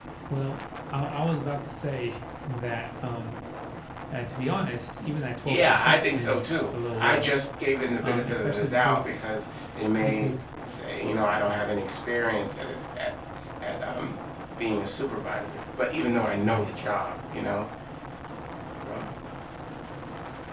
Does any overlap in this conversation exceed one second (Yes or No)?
Yes